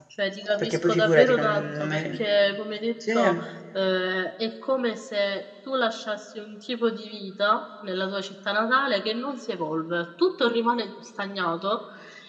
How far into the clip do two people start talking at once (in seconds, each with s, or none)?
0.6 s